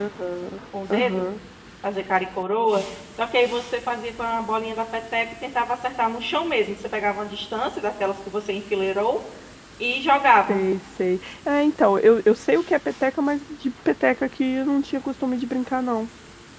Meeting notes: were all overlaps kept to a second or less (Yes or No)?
Yes